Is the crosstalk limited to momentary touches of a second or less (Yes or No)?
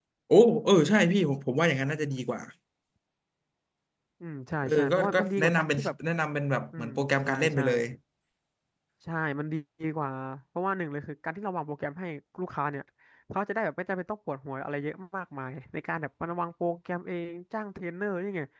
No